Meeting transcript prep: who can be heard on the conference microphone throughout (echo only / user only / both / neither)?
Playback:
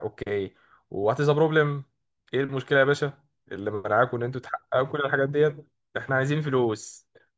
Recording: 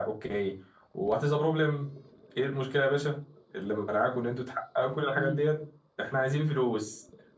both